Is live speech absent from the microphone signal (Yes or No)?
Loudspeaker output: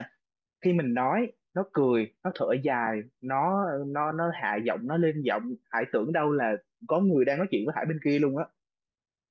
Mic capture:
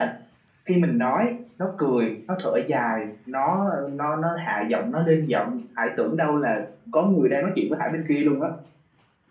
Yes